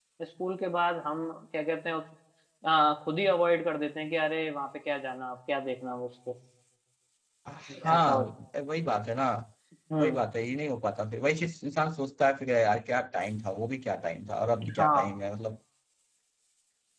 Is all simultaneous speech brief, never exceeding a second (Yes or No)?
Yes